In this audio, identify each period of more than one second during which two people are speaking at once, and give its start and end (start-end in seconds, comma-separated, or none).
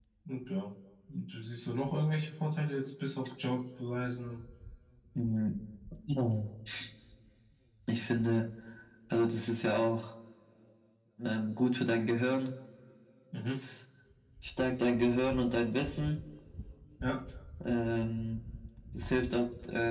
none